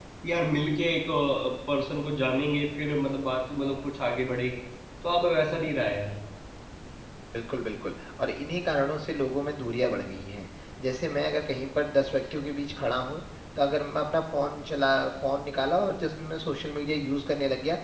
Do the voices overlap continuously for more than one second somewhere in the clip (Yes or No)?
No